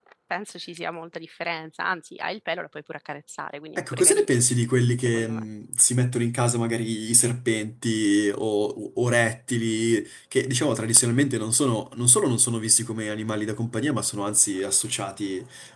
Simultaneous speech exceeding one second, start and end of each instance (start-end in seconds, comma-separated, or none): none